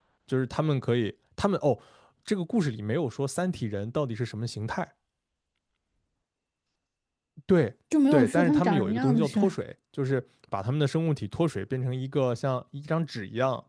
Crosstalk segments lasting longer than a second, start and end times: 8.1-9.5

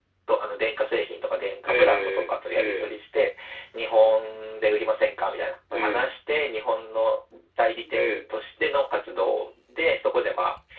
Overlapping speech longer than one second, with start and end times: 1.7-2.9

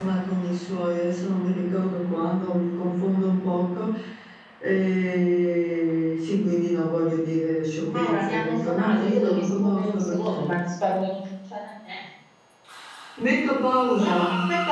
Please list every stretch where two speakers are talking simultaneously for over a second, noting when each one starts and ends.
7.8-10.5

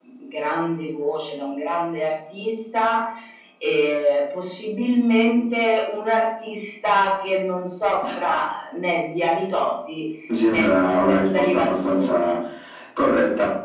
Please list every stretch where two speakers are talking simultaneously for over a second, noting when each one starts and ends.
10.5-12.3

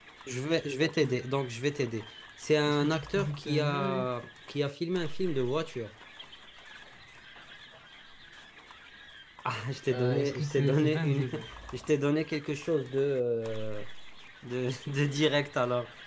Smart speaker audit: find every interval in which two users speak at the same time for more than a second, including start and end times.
2.7-4.1, 9.9-11.3

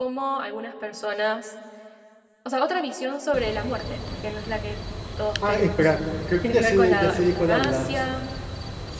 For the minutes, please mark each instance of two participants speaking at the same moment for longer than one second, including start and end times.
6.4-7.9

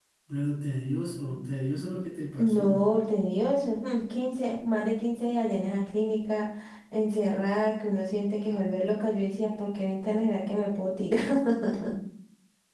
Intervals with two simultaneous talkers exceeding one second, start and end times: none

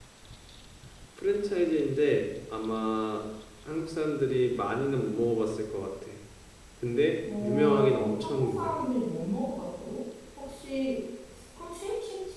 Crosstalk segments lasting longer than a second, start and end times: 7.4-8.8

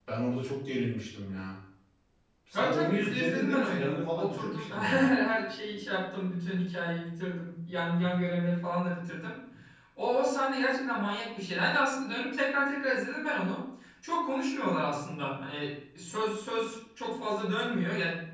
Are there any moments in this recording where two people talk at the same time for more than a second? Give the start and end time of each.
2.5-5.1

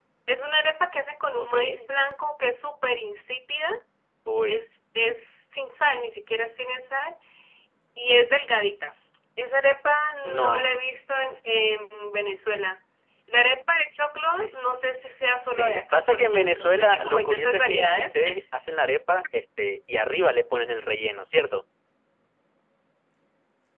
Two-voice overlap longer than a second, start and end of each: 15.4-18.2

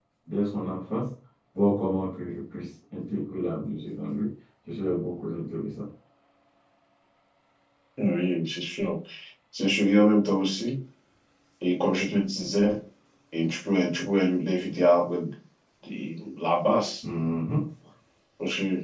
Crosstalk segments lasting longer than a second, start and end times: none

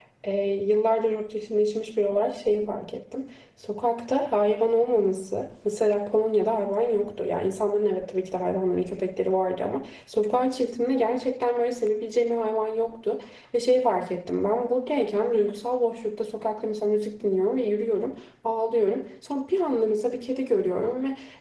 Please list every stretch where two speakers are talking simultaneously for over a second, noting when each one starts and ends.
none

